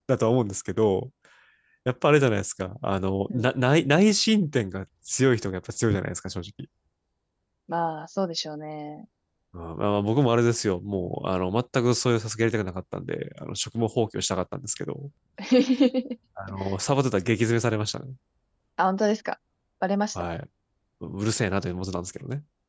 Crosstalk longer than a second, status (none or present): none